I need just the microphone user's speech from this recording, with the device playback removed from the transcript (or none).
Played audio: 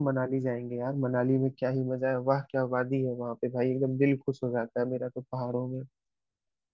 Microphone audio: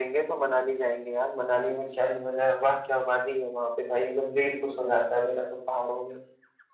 none